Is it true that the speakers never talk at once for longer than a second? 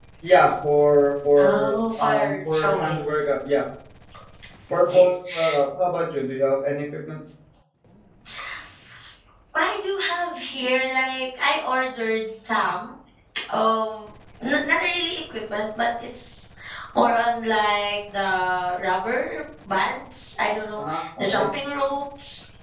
No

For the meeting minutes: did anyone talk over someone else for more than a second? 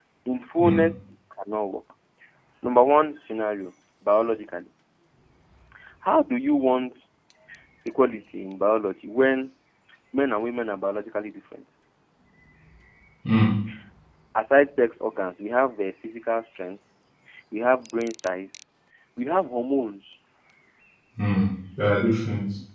No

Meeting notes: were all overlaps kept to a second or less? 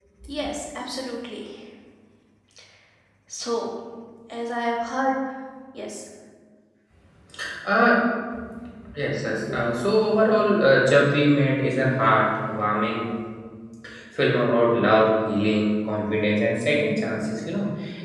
Yes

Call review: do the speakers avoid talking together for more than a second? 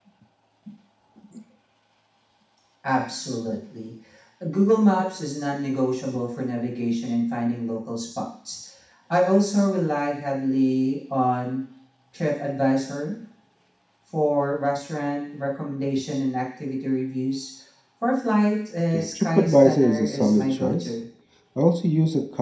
No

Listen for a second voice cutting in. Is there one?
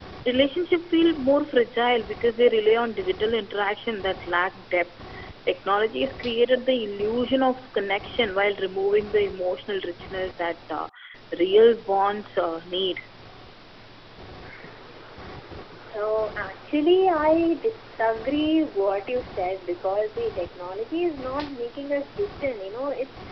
No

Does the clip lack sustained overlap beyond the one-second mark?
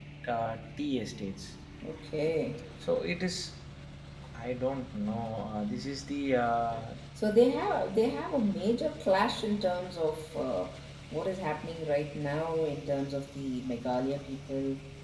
Yes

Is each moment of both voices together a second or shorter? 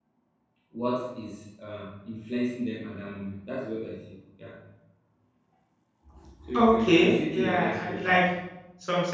No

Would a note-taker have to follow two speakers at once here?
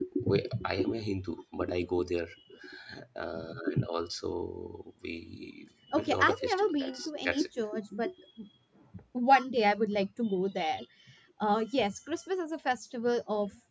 Yes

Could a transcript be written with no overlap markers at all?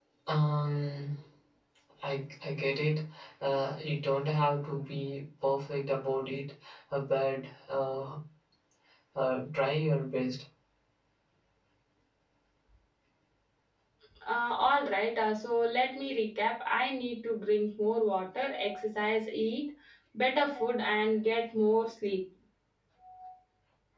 Yes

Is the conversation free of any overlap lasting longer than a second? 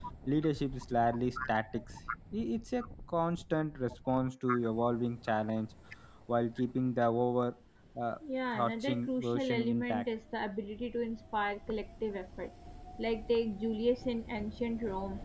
No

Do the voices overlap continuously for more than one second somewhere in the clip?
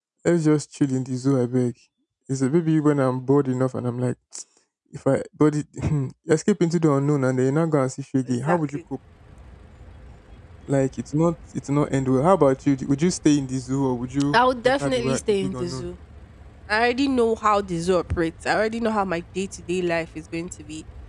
Yes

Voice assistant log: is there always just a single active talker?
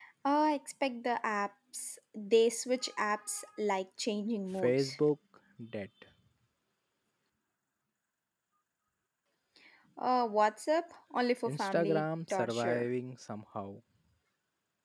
No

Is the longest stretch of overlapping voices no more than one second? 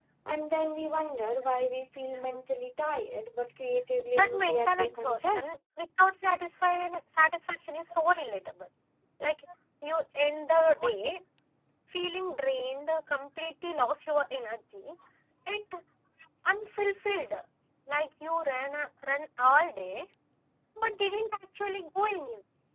No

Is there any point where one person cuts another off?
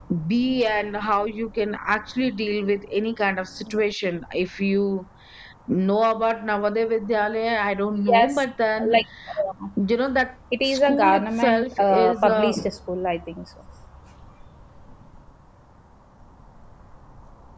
Yes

